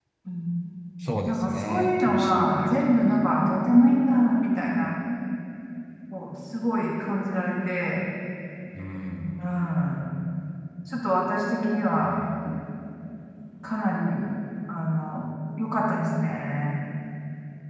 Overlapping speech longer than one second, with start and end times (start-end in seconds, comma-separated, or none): 1.3-3.2